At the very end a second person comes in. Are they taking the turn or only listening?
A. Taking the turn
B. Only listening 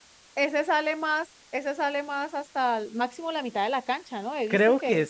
A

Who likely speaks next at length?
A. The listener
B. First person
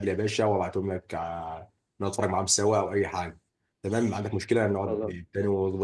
B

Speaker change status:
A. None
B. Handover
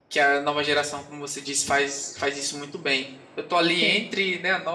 A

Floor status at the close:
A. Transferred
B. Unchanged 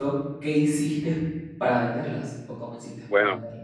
A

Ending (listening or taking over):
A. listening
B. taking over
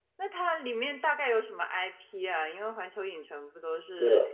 B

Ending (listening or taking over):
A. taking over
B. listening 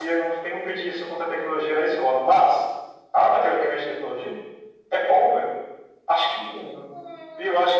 A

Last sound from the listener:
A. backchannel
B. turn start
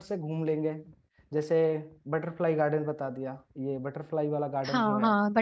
B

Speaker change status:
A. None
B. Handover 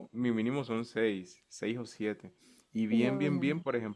A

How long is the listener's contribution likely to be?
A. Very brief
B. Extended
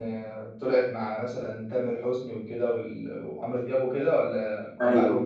B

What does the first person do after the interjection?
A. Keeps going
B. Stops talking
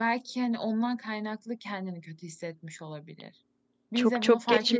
B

